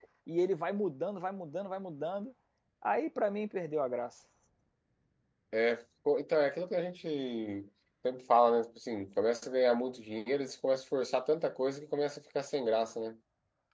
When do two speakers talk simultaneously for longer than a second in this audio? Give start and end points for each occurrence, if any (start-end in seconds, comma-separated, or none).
none